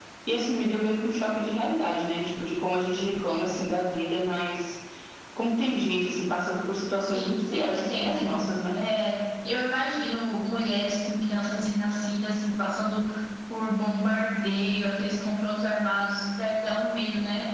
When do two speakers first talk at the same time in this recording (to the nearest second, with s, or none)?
7 s